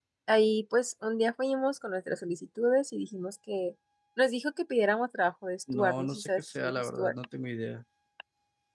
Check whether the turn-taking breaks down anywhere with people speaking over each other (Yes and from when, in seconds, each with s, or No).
Yes, from 5.7 s